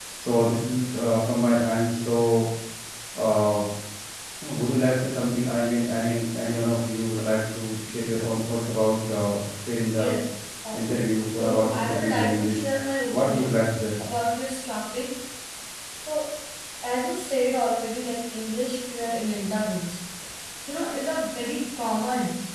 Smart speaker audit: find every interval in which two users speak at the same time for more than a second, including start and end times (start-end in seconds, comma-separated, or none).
11.3-12.6